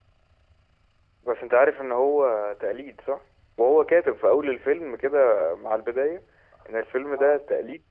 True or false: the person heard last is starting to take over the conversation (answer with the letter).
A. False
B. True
A